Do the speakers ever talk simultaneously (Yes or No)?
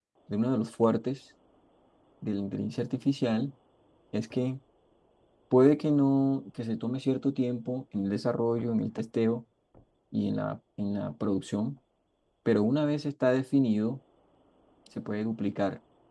No